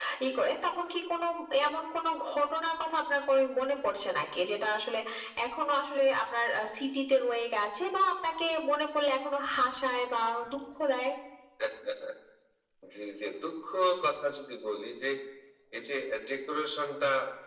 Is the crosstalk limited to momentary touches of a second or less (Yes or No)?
Yes